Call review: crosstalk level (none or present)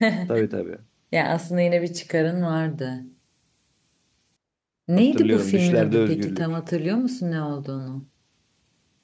present